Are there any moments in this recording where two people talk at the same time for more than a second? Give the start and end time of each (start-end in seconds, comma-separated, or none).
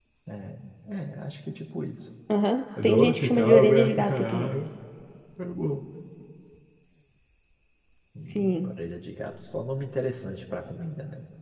2.8-4.5